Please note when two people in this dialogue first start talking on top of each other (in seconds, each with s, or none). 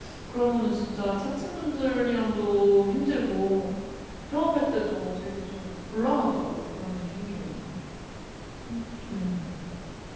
none